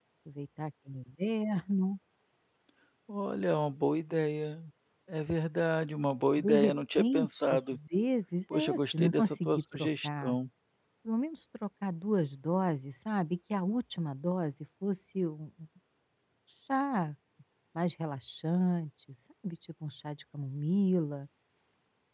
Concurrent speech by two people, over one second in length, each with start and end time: 6.4-7.8, 8.5-10.4

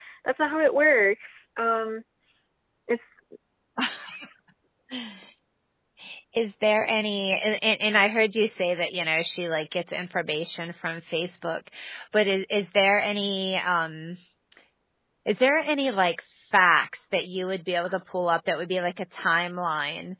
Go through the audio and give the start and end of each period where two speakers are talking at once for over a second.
none

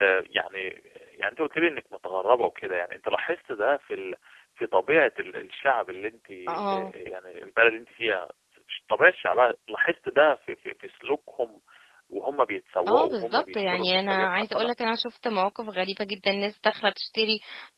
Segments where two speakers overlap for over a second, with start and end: 12.9-14.7

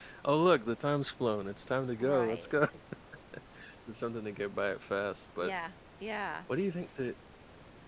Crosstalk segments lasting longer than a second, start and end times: none

